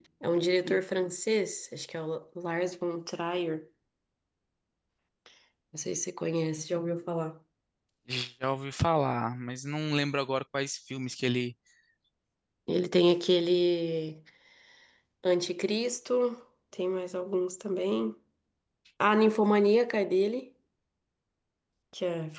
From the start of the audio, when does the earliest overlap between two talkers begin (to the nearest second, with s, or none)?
none